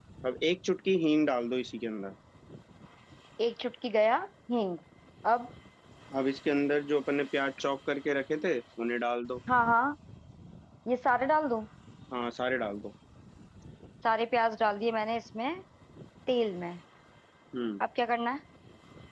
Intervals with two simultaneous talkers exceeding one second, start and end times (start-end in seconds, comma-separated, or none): none